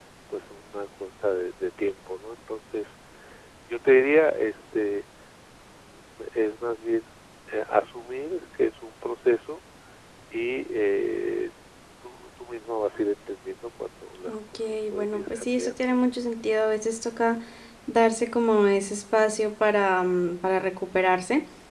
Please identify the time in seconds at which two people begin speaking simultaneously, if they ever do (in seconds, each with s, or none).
14.3 s